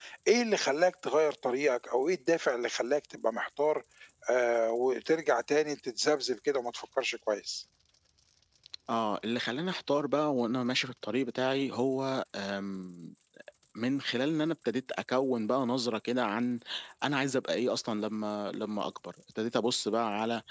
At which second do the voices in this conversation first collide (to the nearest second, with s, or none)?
none